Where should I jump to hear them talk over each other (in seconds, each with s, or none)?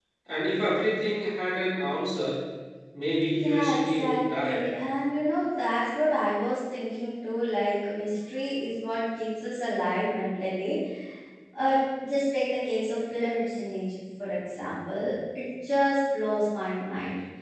3.4 s